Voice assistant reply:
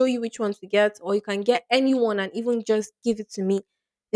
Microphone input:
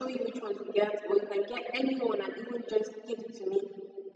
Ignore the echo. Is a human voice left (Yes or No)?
No